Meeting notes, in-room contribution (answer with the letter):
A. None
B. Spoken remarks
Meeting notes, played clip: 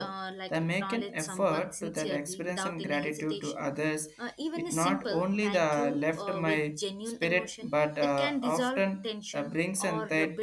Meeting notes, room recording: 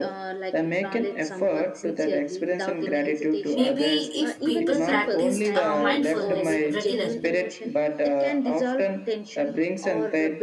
B